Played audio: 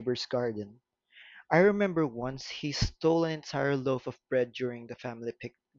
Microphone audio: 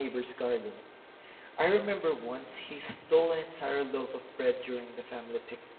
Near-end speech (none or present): none